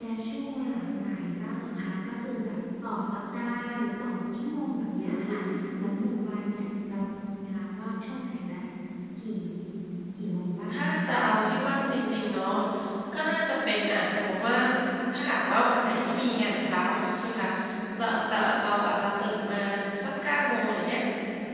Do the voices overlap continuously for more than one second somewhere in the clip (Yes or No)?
No